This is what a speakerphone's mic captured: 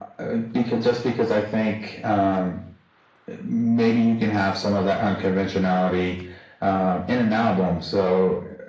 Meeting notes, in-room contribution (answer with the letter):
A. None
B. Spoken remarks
A